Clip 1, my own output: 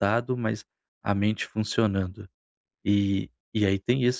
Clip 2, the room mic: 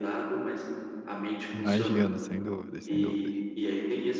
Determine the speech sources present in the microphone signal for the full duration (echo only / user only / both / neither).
both